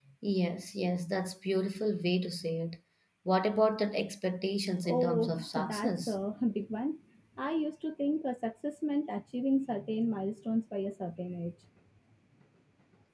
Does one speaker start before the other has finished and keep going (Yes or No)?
Yes